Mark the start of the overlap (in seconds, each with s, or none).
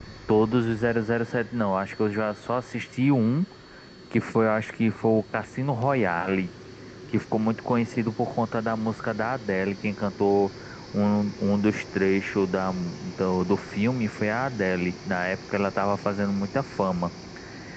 none